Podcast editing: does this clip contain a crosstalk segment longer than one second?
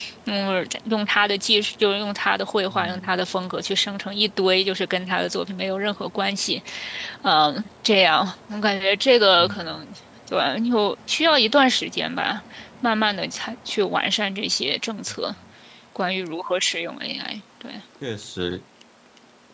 No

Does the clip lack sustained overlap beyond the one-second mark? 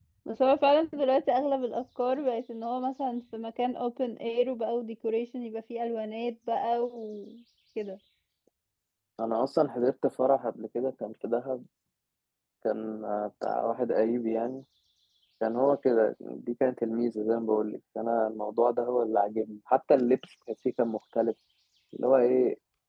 Yes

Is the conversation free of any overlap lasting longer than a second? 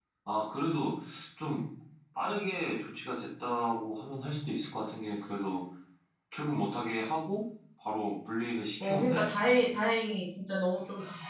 Yes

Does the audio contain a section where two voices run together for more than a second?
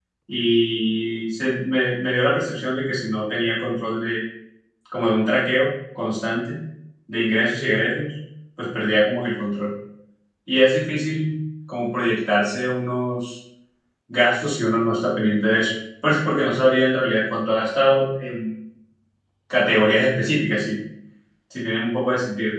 No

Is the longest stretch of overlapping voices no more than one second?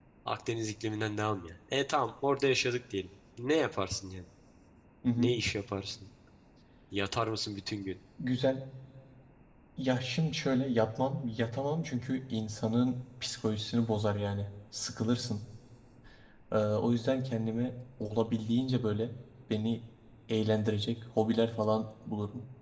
Yes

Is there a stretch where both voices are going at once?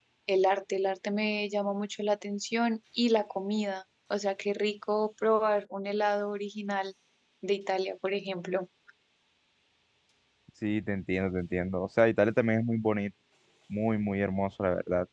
No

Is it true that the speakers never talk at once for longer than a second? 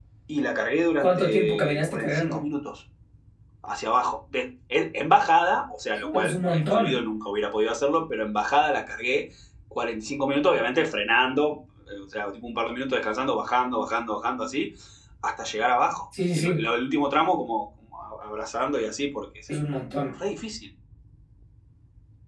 No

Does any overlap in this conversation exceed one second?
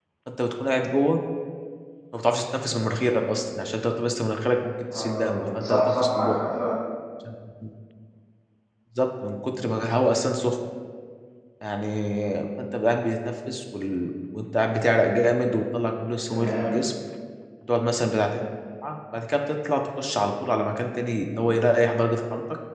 Yes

